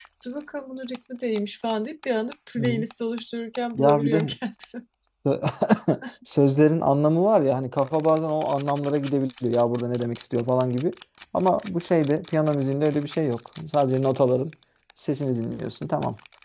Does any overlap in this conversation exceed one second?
No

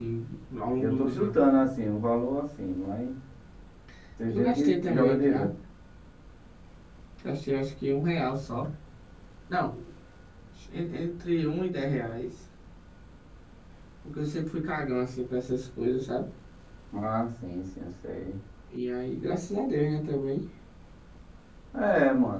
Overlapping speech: Yes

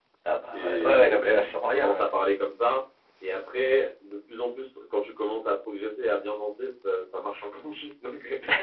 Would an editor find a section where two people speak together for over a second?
Yes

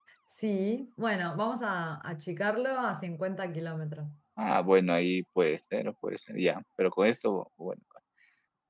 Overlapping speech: No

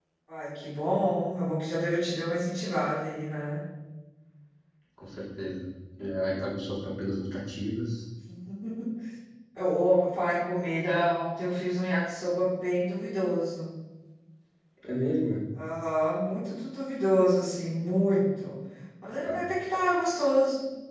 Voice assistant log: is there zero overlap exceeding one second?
Yes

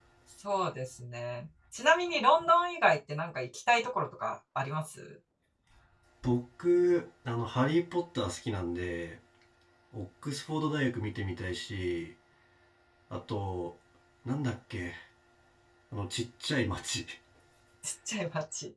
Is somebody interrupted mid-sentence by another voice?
No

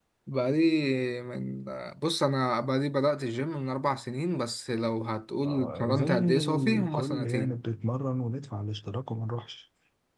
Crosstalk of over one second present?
Yes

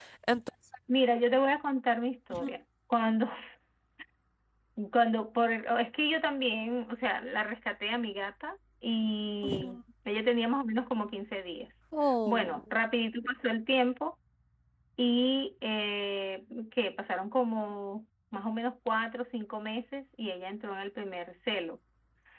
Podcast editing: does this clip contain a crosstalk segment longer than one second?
No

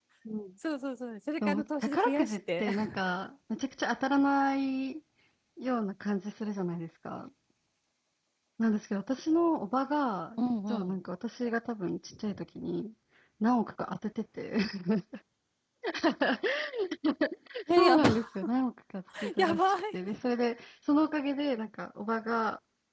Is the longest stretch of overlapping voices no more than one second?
No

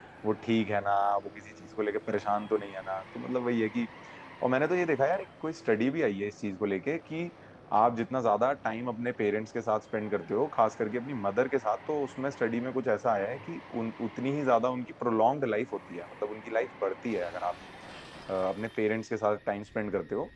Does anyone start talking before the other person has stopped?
No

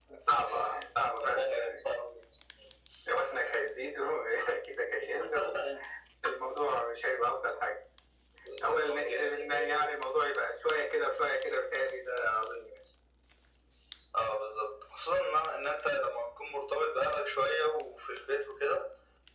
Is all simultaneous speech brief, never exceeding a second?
No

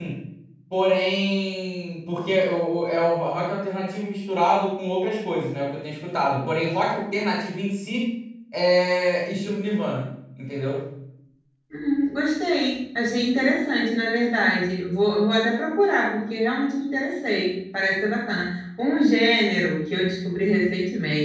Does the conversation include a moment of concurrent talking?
No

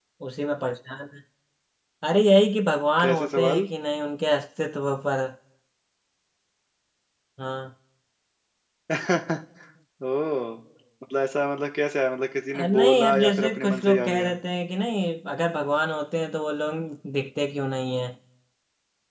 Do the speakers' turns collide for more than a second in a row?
Yes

